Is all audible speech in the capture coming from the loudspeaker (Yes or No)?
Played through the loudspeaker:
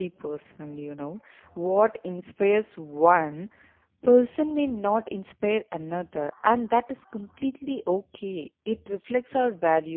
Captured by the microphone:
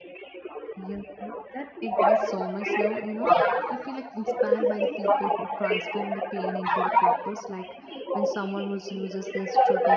No